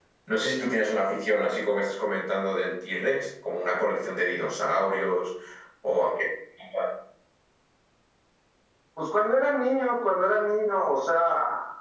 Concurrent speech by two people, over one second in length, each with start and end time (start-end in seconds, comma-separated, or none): none